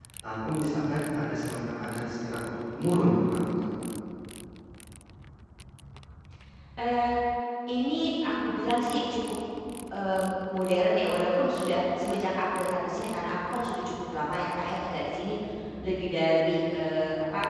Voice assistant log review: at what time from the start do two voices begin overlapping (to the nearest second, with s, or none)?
none